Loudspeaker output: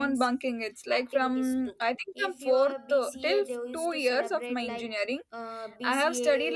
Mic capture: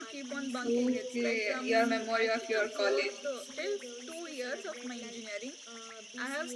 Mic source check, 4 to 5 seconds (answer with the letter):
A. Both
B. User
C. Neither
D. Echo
D